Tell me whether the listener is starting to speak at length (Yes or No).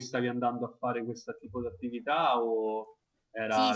Yes